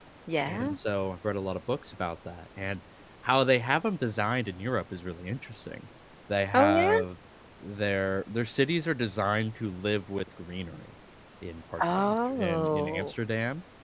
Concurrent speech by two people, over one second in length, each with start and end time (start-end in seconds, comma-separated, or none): 11.8-13.1